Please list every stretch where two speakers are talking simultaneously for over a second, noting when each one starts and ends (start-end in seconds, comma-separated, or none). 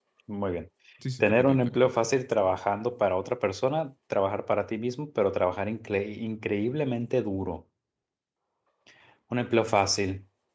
1.2-2.6